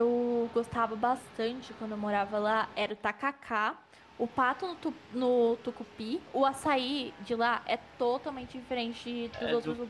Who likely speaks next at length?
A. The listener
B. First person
A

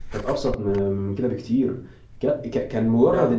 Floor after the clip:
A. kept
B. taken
A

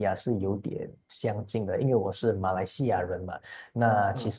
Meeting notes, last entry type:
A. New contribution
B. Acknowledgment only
B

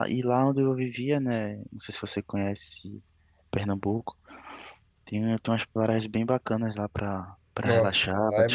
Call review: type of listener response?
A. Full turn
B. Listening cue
A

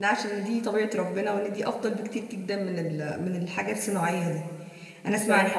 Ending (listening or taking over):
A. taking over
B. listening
B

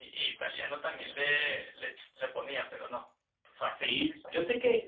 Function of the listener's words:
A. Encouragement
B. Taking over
B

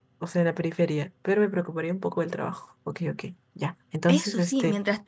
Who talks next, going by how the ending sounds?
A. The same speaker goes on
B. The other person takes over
B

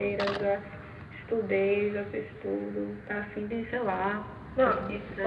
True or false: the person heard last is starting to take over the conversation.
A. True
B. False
A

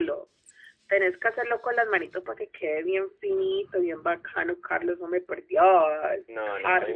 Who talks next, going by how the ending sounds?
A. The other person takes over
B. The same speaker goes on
A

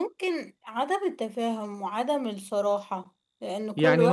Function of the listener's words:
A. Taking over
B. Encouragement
A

